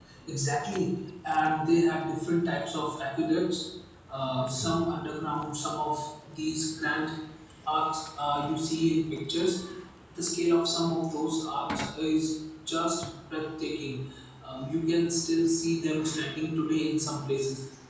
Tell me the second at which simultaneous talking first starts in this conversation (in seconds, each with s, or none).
none